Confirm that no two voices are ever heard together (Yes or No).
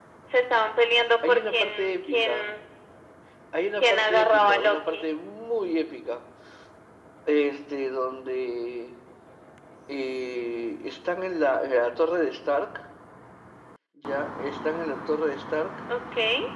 No